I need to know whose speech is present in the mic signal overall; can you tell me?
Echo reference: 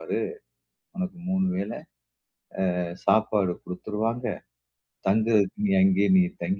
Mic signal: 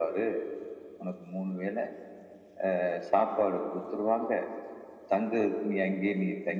echo only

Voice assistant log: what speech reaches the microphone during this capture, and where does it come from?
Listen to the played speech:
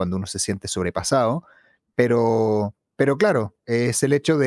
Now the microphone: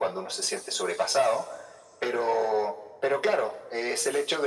echo only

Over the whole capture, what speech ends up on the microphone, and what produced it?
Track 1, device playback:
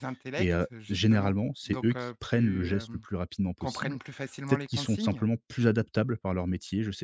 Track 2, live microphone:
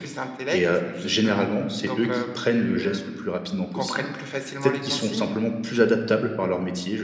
echo only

